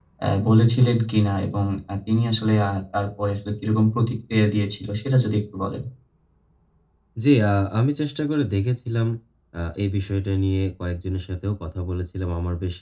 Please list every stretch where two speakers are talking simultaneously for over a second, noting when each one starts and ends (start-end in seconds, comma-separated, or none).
none